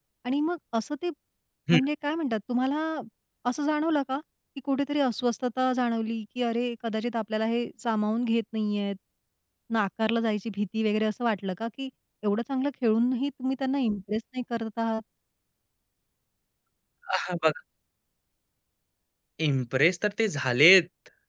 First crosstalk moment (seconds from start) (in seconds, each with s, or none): none